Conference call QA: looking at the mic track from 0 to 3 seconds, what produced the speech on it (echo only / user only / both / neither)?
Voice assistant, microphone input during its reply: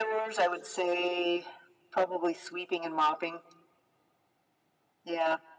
echo only